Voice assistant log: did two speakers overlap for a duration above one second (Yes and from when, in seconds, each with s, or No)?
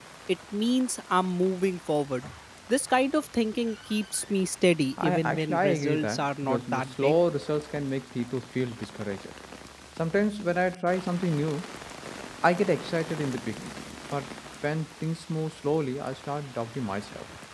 Yes, from 5.0 s